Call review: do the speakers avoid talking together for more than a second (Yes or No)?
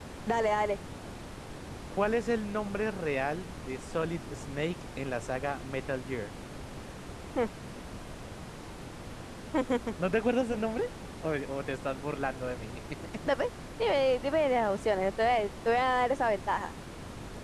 Yes